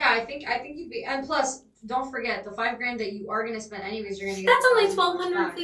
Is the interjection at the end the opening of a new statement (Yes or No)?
Yes